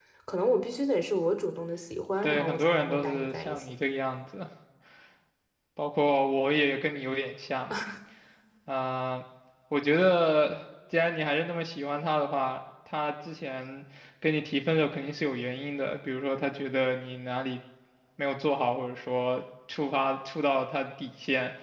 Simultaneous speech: Yes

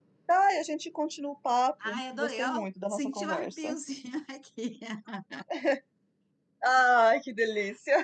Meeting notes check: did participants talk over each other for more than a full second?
Yes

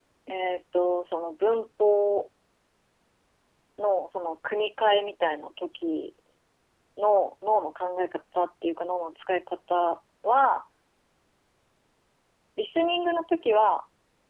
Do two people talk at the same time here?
No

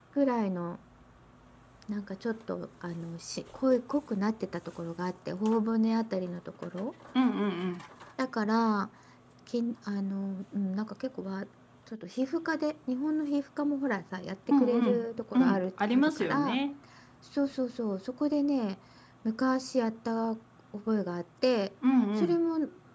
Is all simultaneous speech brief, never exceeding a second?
No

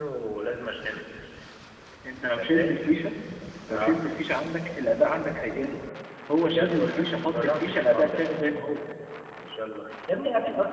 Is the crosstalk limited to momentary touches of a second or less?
No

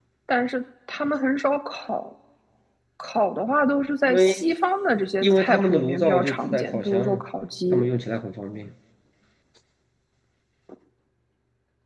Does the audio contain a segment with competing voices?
Yes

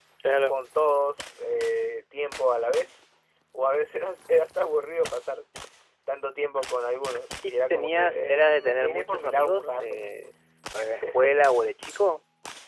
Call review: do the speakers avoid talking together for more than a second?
No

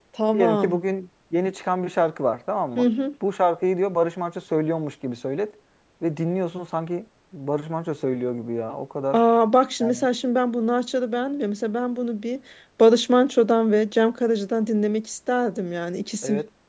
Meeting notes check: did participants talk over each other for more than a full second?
No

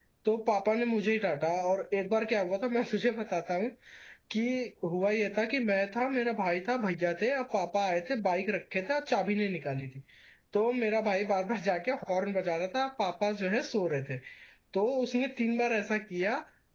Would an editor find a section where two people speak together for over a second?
No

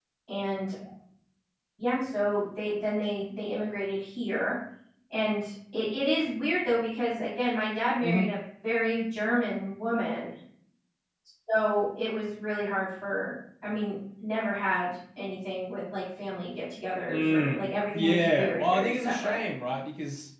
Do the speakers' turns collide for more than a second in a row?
Yes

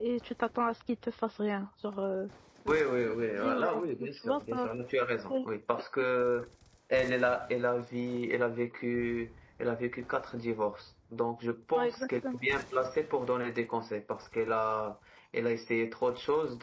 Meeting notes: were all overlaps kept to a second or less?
No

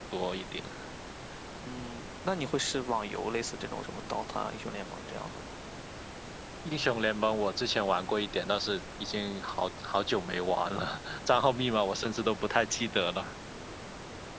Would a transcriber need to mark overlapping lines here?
No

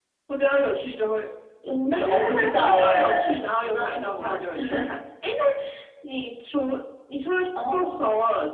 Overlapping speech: Yes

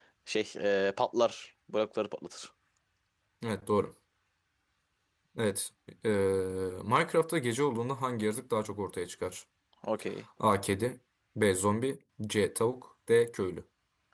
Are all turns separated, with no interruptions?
Yes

